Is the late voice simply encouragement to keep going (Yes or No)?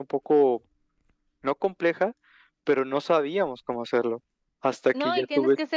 No